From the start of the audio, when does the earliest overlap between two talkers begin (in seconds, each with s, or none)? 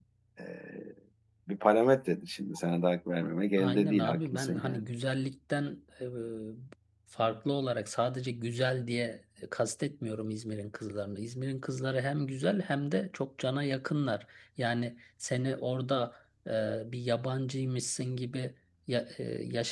3.6 s